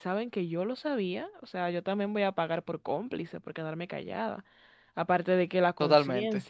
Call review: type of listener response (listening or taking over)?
listening